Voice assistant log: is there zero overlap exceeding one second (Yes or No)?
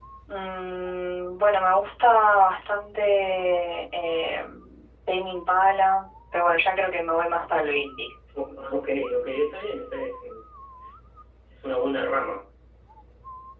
Yes